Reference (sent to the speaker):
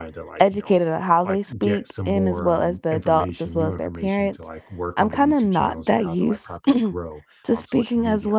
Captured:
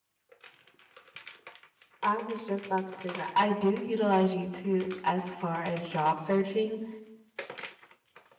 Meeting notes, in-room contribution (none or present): present